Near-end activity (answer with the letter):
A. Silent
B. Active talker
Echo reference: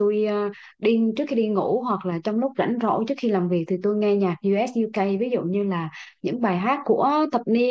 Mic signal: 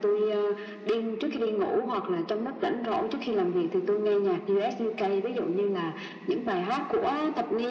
A